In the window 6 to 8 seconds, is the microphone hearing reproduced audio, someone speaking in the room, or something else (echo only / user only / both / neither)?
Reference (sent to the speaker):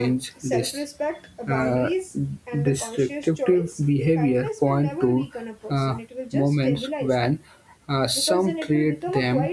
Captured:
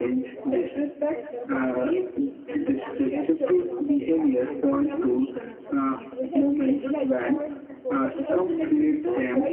both